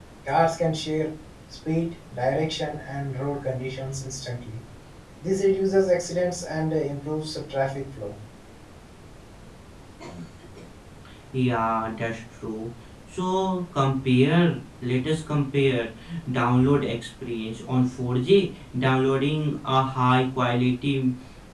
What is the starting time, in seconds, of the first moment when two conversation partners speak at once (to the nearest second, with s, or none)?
none